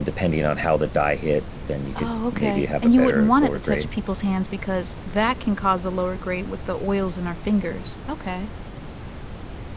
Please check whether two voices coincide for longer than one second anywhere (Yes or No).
Yes